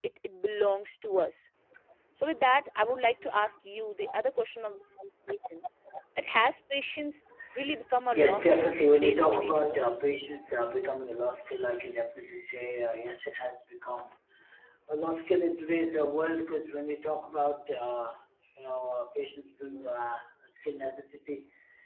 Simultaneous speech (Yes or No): Yes